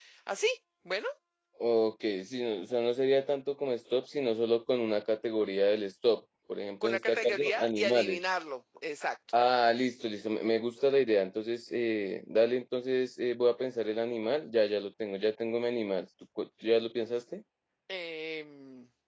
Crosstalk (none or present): present